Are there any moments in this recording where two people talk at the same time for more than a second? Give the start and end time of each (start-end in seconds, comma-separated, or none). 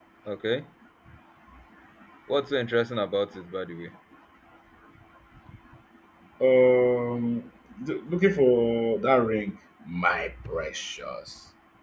none